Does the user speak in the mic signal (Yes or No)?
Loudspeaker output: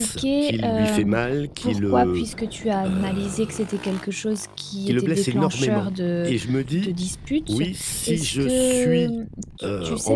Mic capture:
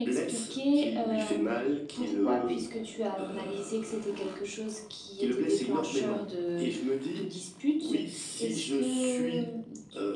No